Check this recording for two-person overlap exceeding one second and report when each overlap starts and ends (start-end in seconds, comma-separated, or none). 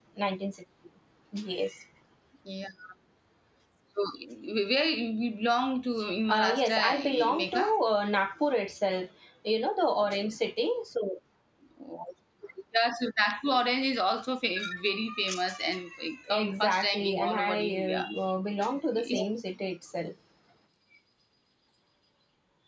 6.3-7.6, 16.3-18.0